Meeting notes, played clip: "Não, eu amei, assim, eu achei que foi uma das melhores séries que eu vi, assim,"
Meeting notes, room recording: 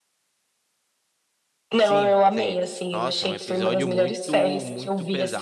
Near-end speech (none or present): present